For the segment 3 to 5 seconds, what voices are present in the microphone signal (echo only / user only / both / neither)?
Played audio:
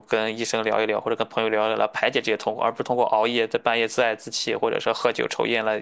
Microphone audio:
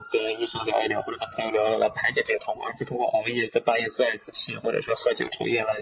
echo only